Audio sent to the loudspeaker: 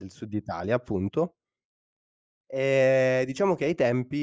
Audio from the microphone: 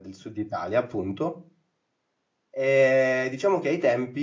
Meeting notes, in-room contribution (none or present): none